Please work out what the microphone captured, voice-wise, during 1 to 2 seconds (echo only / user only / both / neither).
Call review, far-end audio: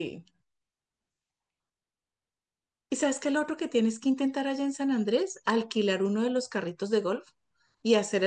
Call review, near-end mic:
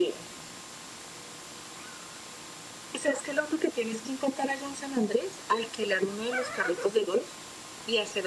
neither